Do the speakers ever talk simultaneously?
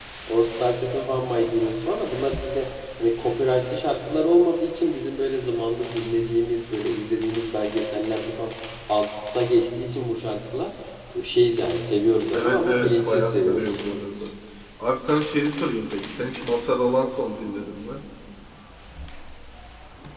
Yes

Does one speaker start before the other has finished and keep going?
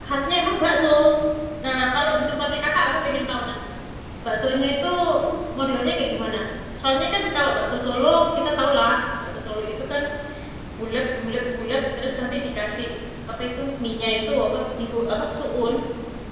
No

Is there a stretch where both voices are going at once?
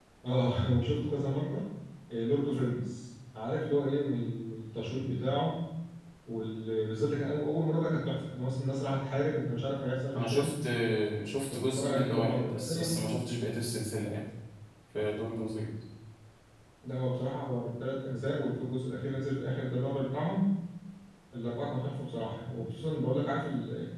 Yes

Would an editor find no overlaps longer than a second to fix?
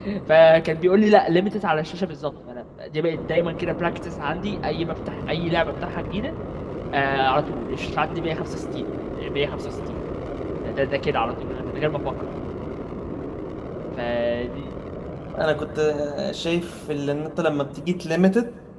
Yes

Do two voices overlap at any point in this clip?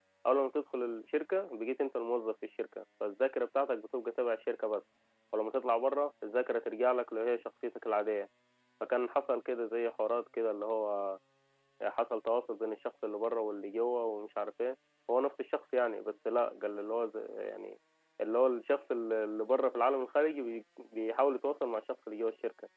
No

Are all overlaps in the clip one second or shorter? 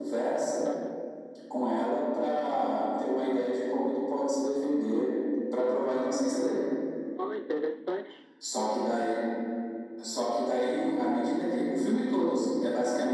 Yes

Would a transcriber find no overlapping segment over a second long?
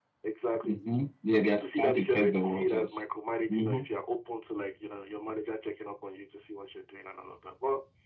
No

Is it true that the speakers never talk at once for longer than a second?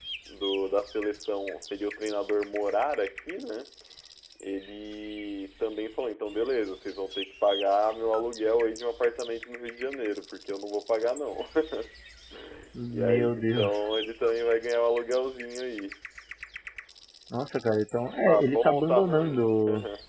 No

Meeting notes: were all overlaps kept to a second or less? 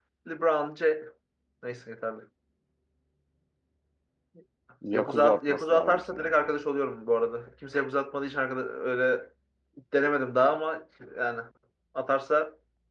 No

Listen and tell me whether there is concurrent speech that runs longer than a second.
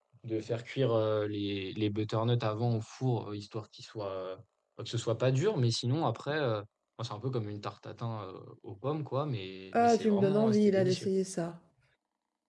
Yes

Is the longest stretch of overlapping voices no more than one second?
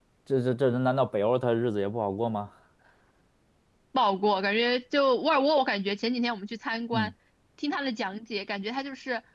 Yes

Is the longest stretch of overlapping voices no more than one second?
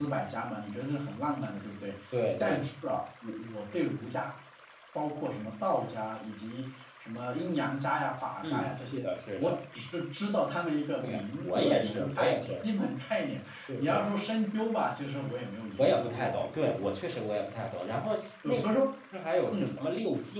No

